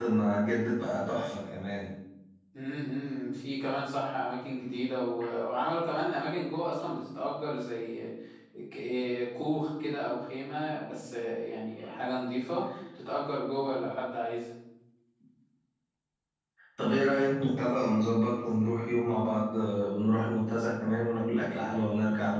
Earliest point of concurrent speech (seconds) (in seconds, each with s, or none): none